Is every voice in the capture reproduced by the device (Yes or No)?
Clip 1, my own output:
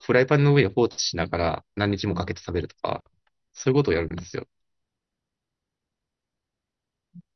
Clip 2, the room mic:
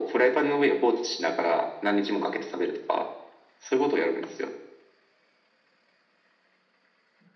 Yes